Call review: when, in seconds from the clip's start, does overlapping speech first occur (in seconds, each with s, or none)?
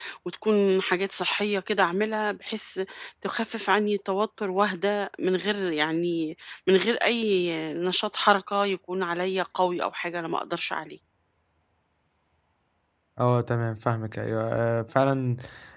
none